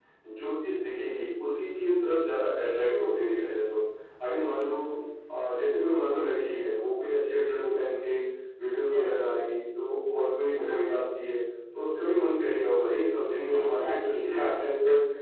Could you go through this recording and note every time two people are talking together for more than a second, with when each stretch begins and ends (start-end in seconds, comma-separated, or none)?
13.4-14.6